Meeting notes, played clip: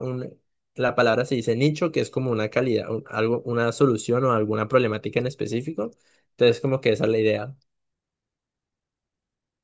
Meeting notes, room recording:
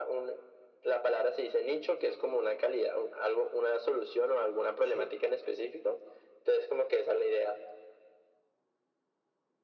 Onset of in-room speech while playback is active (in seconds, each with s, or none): 4.8 s